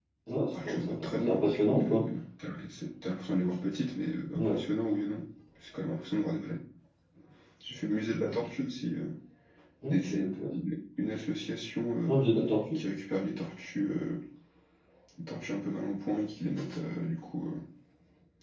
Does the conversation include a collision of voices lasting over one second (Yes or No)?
Yes